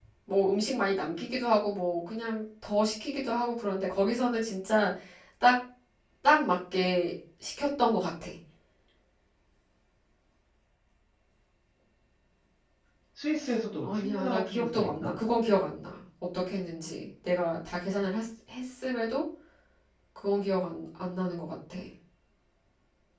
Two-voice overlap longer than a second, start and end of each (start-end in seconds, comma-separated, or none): 13.8-15.1